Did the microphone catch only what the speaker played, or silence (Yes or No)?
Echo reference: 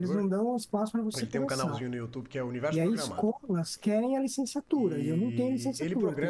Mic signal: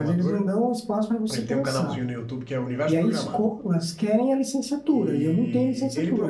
Yes